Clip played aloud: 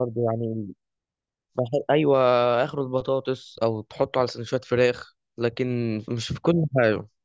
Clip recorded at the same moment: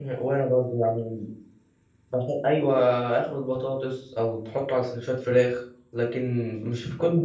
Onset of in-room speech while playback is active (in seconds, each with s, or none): none